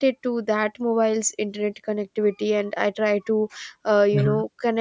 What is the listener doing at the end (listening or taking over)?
listening